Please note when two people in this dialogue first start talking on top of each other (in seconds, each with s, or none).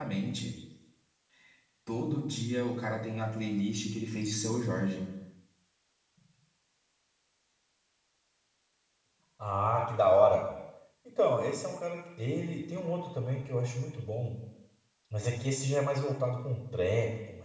none